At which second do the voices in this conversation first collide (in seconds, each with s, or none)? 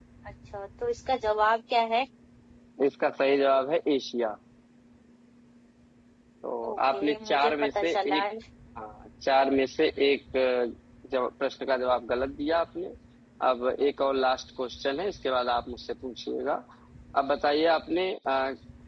6.7 s